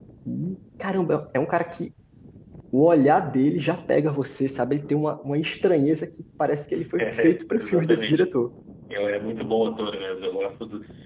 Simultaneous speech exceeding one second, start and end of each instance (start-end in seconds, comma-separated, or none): 7.0-8.2